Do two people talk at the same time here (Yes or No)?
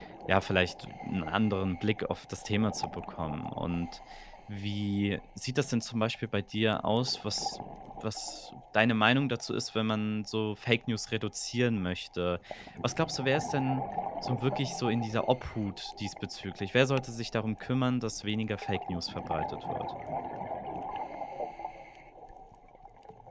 No